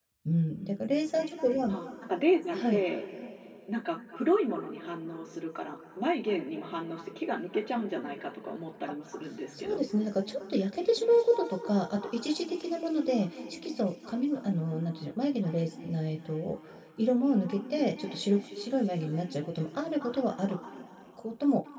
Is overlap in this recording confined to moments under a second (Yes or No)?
Yes